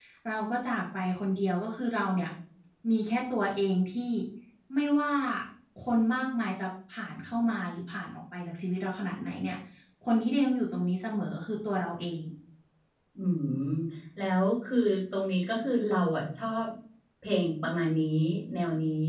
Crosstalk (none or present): none